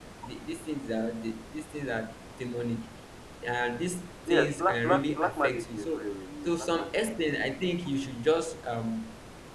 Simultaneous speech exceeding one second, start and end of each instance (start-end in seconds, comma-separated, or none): 4.3-6.1